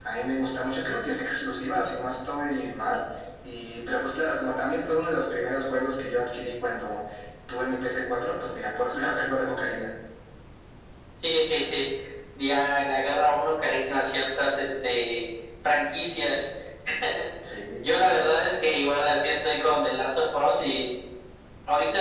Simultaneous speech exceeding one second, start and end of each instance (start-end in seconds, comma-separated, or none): none